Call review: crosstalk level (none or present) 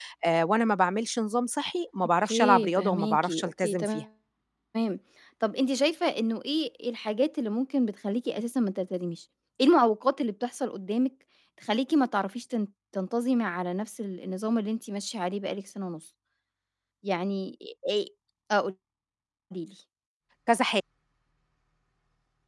present